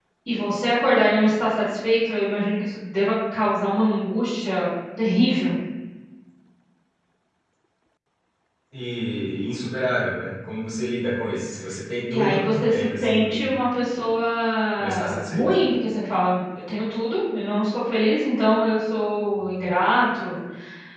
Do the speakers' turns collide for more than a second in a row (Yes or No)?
Yes